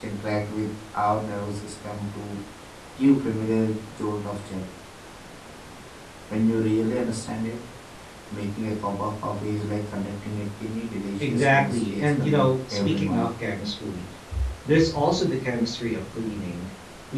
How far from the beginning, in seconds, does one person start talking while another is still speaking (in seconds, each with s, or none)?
11.2 s